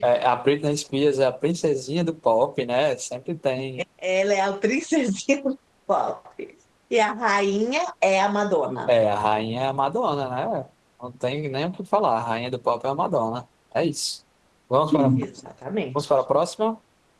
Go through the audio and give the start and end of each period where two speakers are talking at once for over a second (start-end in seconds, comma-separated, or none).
none